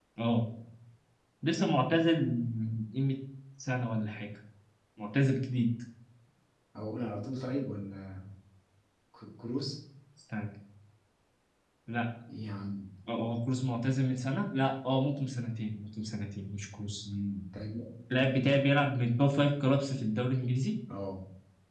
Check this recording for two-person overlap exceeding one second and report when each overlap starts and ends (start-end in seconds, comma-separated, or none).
none